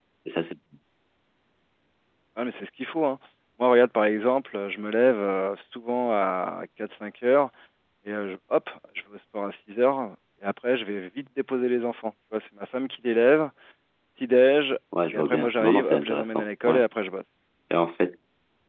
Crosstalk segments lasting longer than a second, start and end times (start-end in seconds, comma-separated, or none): 15.1-16.8